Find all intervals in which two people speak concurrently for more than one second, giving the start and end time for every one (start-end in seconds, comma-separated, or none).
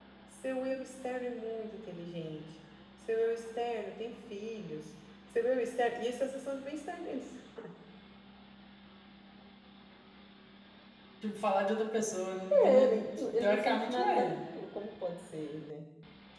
12.5-14.4